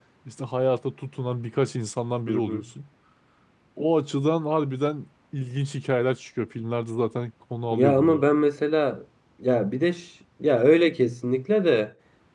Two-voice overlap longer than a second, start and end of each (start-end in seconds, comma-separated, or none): none